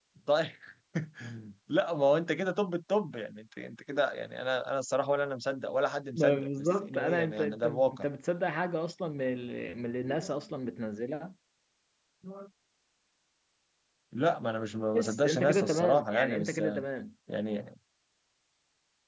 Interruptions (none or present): present